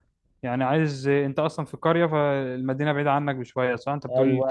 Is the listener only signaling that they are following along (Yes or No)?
No